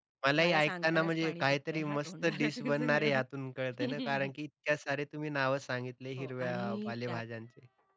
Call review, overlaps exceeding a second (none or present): present